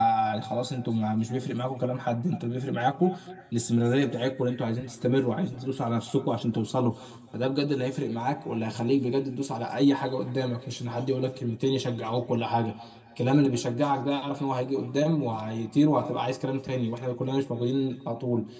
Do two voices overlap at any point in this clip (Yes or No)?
No